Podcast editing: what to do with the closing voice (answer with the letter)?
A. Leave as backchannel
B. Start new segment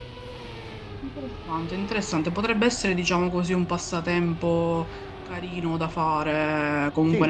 A